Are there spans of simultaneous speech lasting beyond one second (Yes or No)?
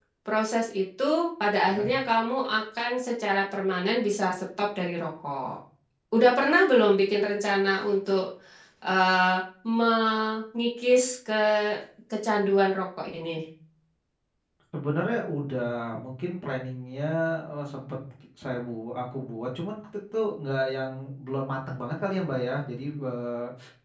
No